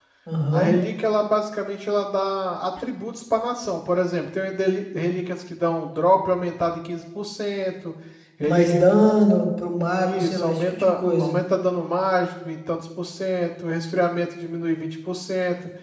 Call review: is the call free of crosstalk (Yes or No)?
No